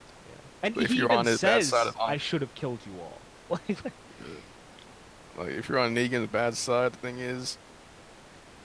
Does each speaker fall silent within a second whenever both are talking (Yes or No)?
No